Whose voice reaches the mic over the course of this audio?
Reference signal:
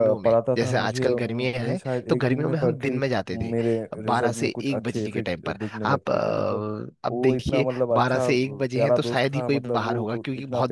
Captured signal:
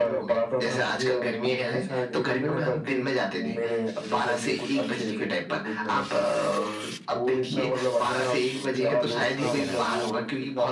both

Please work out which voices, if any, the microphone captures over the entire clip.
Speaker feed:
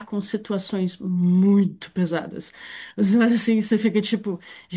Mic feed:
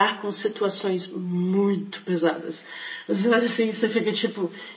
echo only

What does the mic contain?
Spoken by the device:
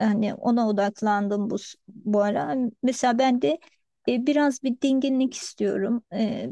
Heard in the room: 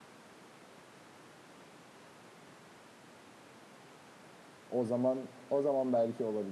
user only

